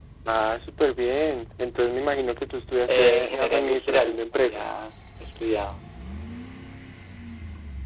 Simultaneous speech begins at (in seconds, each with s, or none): 2.9 s